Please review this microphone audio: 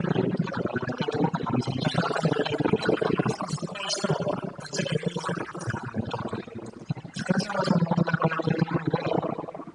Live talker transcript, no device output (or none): none